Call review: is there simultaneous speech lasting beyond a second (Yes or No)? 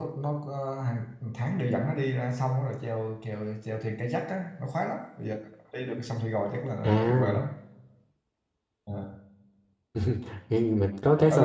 No